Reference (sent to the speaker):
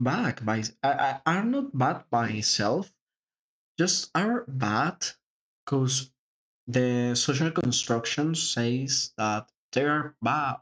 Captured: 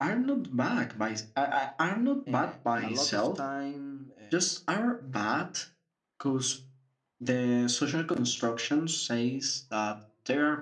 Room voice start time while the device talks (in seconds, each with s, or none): 2.3 s